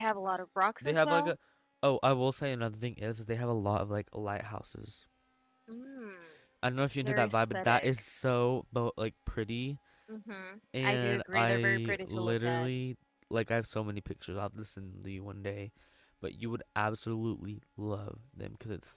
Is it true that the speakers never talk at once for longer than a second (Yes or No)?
No